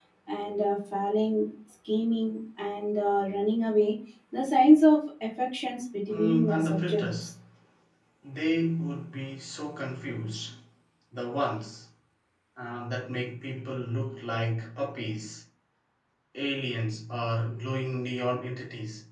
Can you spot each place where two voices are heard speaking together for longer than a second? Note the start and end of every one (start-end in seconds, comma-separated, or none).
6.1-7.3